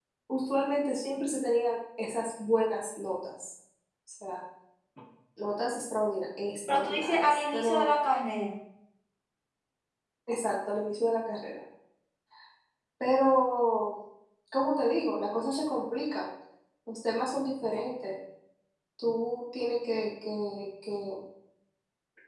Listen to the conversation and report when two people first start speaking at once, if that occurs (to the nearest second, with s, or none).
7 s